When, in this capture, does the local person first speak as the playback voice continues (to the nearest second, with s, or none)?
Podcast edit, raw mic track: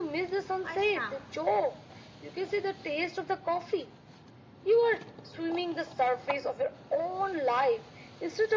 1 s